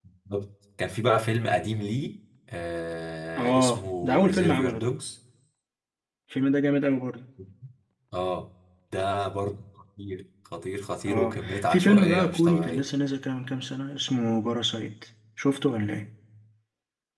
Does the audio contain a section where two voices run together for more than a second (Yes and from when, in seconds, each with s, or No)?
Yes, from 3.4 s